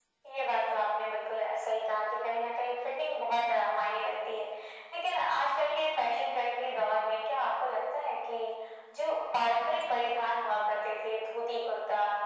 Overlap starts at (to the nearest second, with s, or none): none